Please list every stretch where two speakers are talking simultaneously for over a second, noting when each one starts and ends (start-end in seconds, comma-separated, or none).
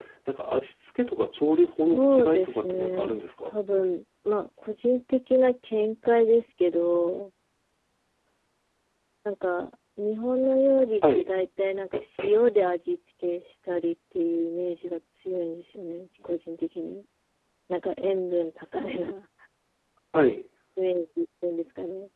1.6-3.5